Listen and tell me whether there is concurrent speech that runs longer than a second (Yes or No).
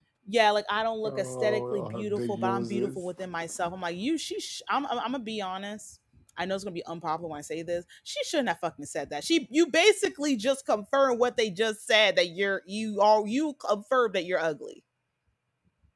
Yes